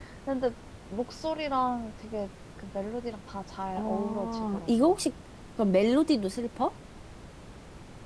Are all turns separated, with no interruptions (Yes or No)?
No